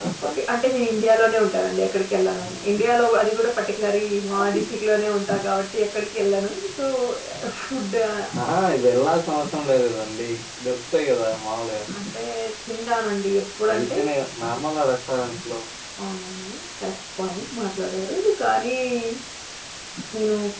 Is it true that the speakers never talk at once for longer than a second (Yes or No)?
Yes